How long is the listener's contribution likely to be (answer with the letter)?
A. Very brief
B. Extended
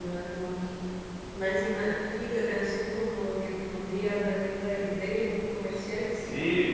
B